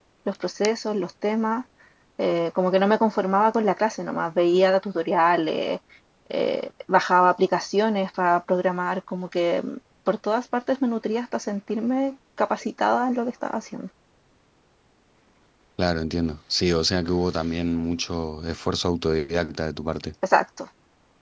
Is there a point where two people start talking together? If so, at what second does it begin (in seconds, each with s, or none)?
none